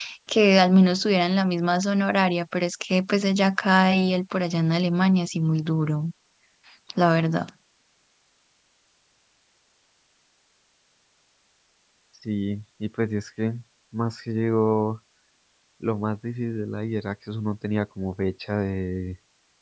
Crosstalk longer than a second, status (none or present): none